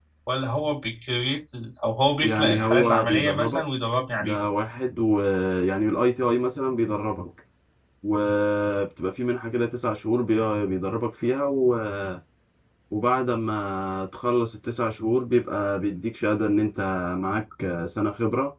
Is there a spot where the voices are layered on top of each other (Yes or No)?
Yes